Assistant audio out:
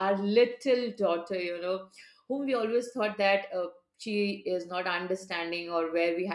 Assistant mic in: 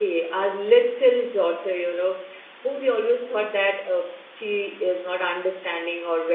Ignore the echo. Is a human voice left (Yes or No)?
No